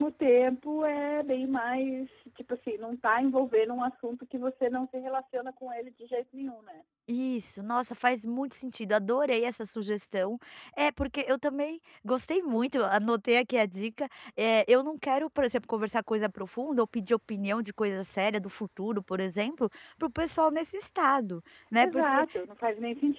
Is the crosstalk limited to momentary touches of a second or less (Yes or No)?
Yes